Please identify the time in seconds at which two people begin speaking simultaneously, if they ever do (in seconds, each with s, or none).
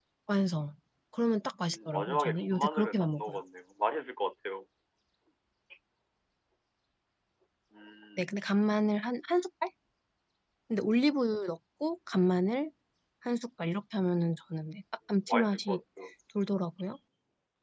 1.6 s